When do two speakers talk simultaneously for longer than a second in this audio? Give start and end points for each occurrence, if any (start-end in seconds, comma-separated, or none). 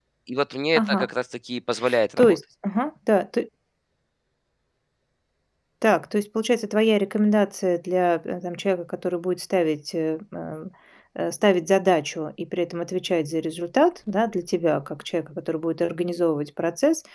none